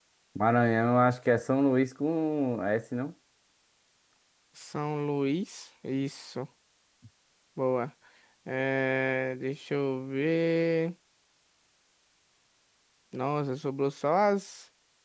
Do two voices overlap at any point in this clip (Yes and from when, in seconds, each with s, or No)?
No